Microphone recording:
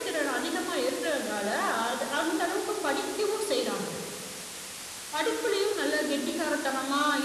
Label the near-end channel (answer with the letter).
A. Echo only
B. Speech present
A